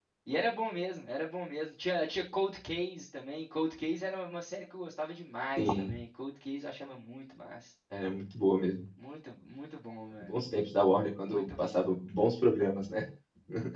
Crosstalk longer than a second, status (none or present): none